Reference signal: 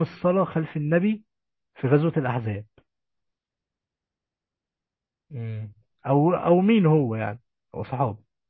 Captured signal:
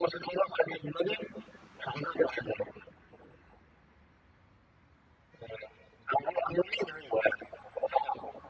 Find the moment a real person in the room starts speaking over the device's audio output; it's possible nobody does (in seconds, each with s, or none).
none